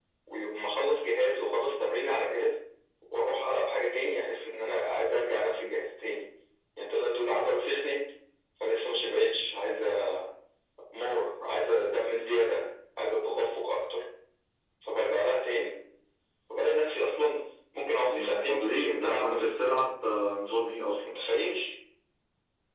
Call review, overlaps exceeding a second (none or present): present